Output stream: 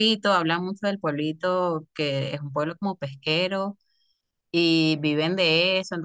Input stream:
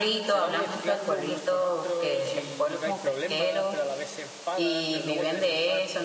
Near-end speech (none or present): present